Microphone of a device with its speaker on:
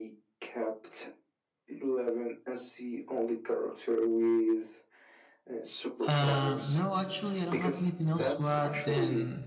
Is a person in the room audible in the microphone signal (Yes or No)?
Yes